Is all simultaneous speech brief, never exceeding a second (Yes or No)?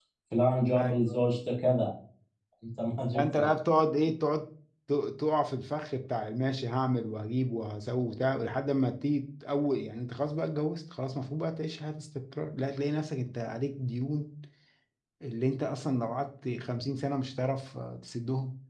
Yes